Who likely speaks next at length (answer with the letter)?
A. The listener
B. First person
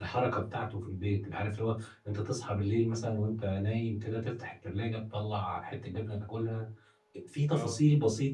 B